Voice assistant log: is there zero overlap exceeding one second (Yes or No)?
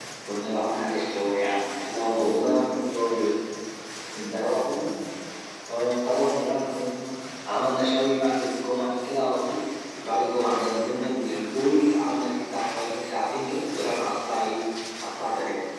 Yes